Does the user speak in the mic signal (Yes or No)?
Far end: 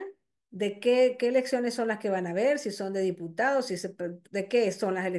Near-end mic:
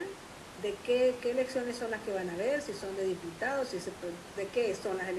No